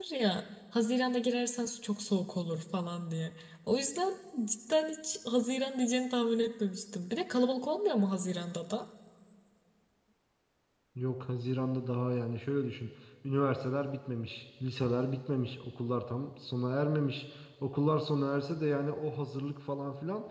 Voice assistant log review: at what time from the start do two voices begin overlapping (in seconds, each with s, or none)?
none